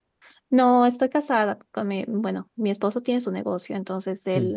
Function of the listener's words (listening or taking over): listening